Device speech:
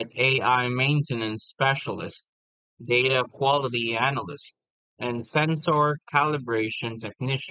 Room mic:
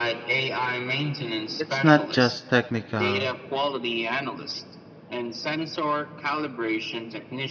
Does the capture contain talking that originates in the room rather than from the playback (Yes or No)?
Yes